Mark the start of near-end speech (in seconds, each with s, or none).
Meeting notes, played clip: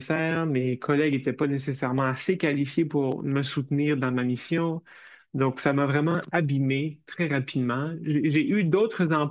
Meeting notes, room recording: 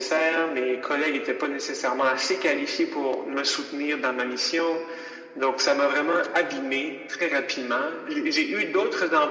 none